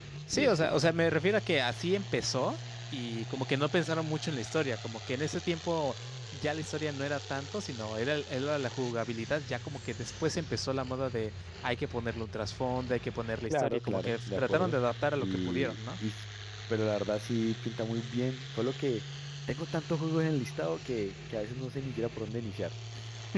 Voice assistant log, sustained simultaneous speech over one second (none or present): present